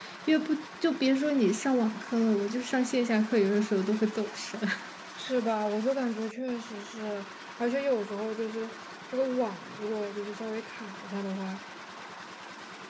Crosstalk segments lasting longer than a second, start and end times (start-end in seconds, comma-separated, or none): none